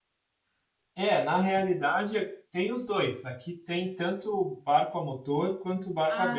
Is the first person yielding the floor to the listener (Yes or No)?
No